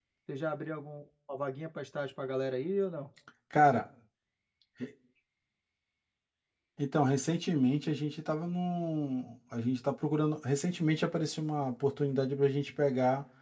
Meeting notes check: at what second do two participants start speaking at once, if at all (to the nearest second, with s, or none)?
none